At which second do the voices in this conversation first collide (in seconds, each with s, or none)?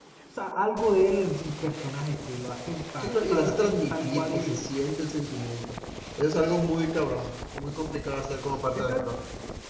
3.0 s